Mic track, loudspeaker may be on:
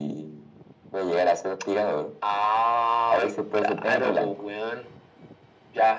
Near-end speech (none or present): none